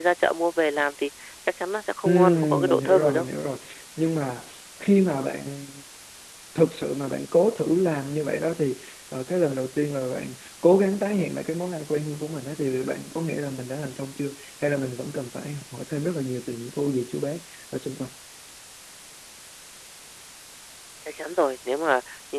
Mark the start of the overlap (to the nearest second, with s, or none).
2 s